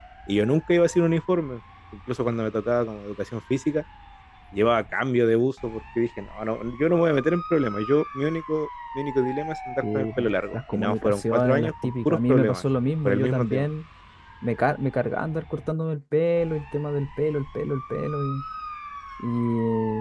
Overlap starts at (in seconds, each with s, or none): 9.8 s